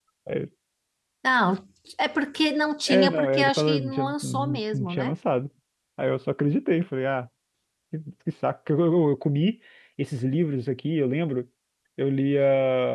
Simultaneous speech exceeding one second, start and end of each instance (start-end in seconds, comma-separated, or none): 2.9-5.1